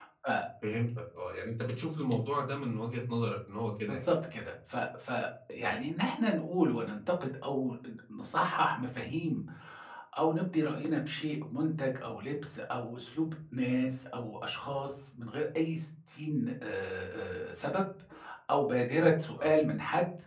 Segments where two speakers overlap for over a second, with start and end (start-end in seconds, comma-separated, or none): none